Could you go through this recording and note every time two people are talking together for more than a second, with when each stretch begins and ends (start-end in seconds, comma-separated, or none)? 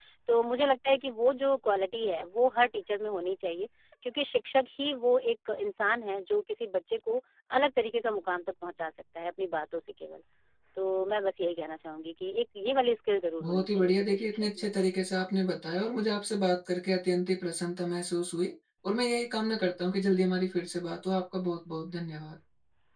13.4-14.7